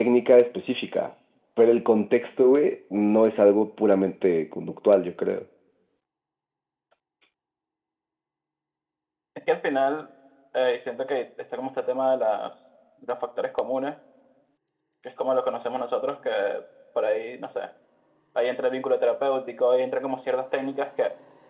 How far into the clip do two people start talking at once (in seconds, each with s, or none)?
none